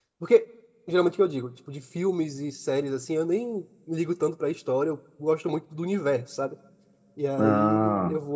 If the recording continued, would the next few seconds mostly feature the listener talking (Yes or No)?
No